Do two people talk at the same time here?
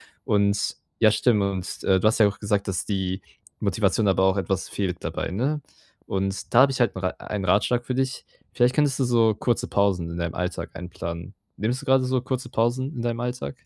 No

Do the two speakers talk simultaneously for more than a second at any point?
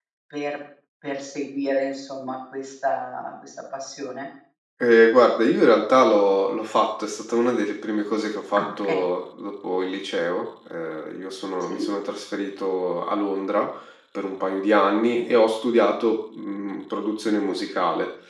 No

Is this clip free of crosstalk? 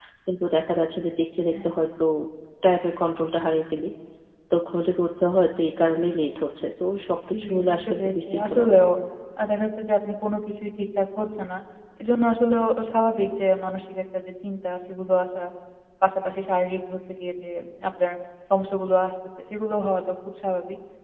No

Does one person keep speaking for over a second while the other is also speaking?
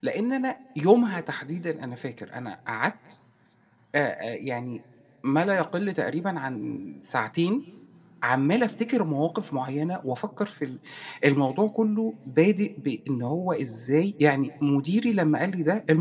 No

